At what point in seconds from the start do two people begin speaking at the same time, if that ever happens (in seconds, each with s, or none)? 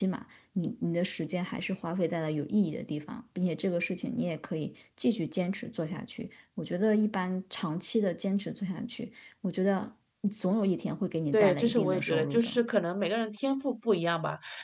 11.3 s